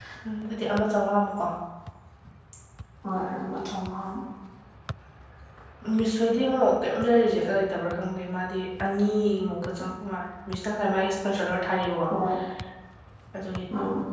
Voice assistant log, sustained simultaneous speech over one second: none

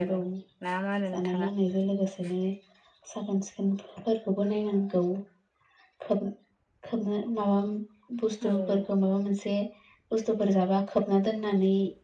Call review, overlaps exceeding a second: none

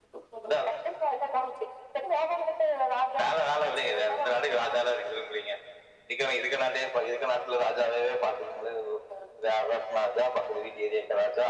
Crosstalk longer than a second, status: present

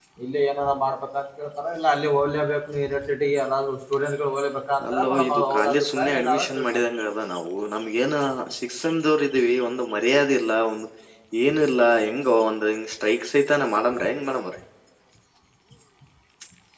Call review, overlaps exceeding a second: present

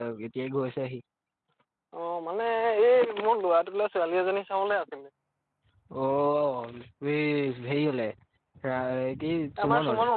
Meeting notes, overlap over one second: none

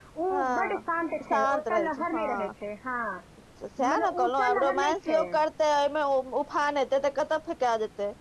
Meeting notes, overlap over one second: present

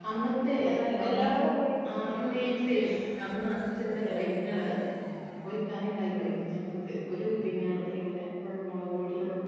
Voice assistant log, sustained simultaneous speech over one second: none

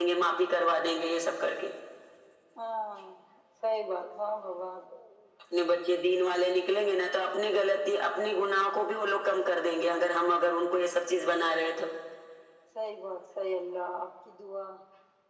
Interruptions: none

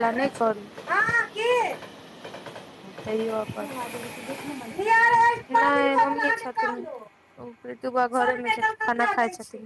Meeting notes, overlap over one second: none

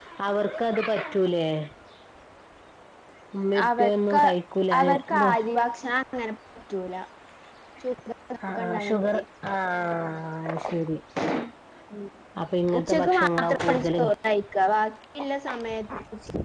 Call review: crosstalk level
present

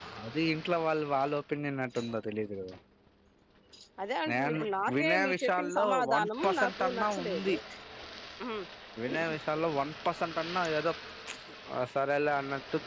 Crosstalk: present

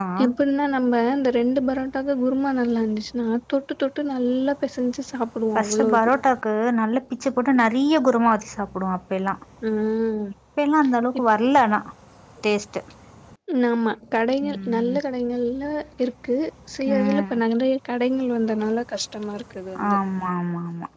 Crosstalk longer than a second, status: none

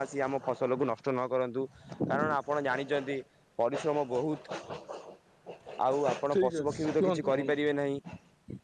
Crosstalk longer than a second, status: present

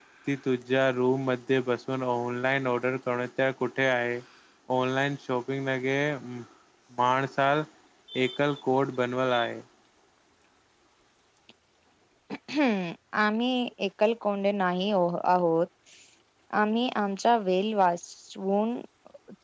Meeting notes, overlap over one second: none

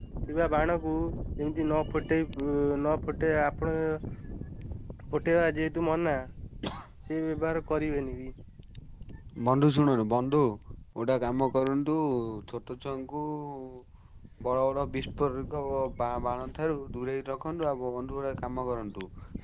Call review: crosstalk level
none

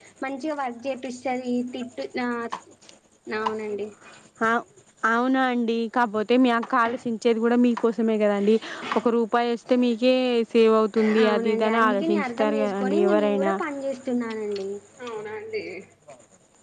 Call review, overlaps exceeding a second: present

